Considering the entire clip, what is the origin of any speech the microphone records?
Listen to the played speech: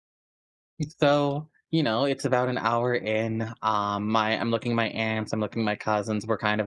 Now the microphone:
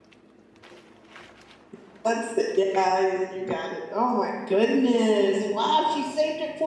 user only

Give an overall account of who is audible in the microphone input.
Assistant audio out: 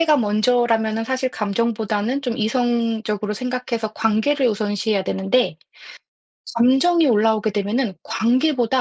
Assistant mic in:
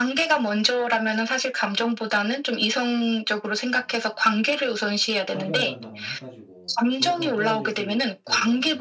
both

